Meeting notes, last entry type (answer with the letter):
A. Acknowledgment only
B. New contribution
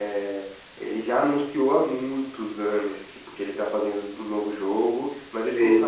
A